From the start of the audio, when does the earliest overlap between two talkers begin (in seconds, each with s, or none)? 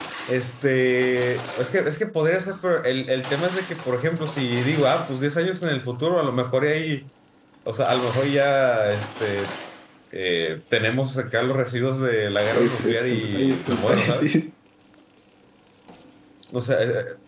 12.5 s